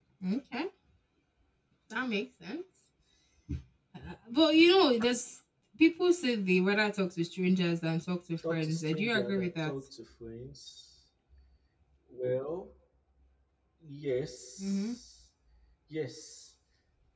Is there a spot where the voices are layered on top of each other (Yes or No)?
Yes